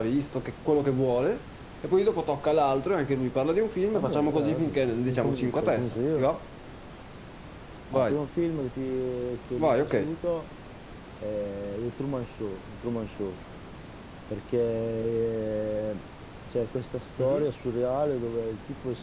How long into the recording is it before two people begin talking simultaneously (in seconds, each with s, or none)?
3.9 s